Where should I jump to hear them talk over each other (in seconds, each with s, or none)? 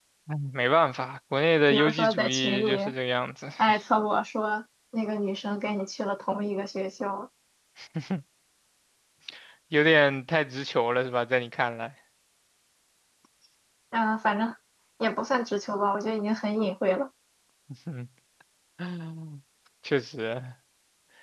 1.7 s